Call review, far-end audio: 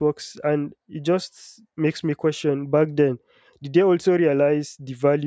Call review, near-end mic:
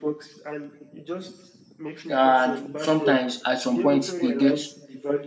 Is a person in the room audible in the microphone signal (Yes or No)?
Yes